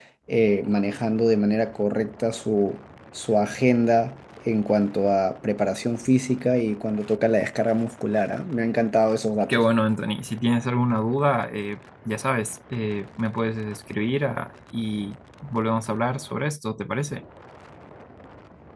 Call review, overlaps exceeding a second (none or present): none